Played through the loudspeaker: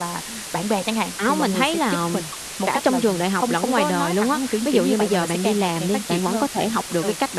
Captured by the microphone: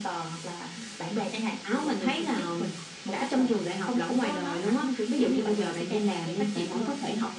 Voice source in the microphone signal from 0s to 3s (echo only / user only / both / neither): echo only